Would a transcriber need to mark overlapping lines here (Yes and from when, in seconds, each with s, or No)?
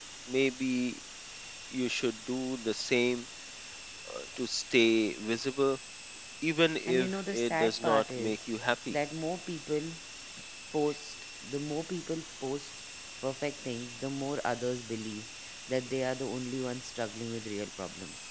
Yes, from 6.9 s